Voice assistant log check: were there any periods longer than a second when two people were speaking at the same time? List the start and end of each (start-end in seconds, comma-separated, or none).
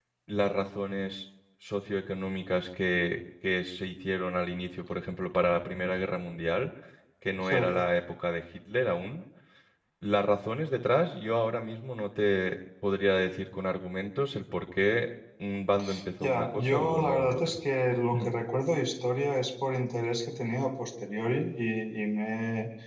16.2-17.6